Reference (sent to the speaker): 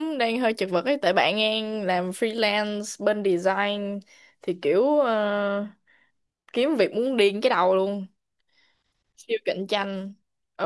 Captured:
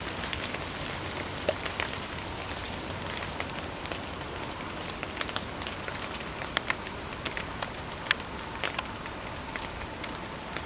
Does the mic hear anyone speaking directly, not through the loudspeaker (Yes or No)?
No